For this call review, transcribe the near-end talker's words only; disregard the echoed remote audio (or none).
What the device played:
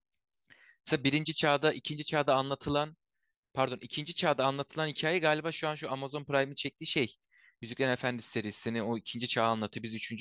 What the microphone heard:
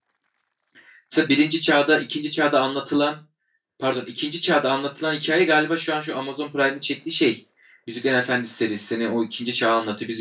none